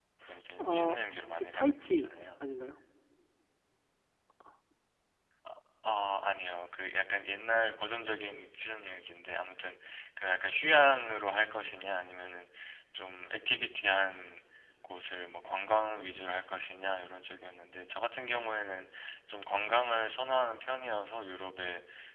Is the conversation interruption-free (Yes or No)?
No